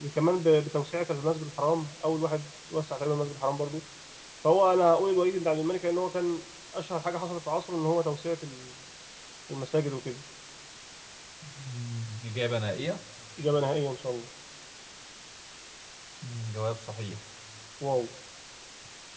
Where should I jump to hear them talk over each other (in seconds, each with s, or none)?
none